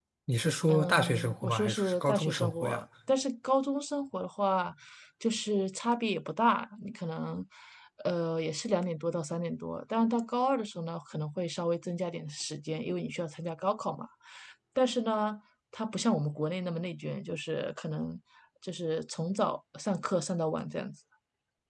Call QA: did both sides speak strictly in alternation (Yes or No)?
No